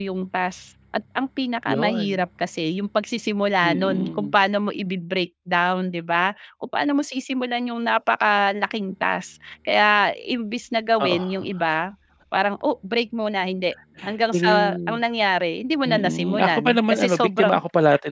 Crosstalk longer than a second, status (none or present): present